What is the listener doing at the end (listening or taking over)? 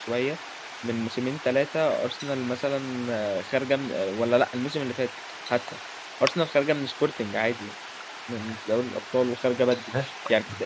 listening